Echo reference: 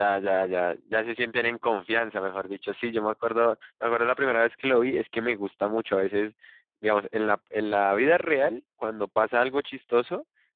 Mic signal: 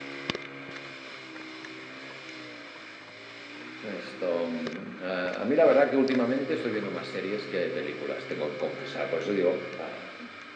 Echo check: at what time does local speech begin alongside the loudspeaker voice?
3.8 s

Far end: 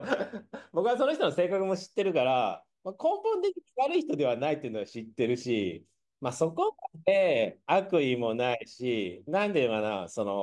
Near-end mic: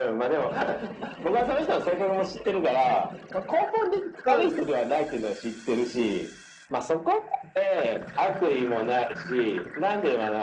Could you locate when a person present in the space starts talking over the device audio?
4.2 s

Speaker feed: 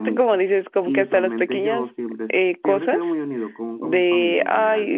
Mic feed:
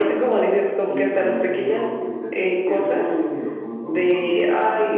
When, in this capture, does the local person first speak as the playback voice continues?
none

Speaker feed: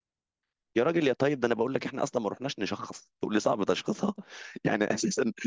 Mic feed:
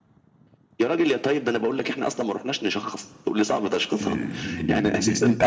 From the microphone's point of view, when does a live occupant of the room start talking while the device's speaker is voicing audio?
4.0 s

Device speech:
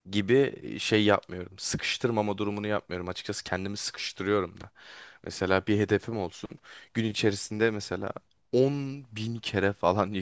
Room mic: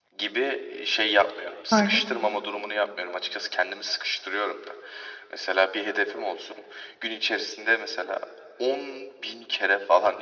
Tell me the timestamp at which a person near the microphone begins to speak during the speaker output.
1.7 s

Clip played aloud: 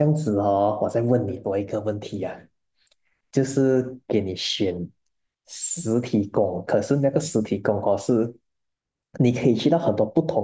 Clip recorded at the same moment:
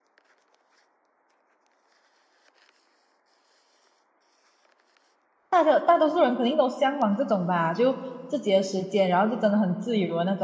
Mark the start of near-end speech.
5.5 s

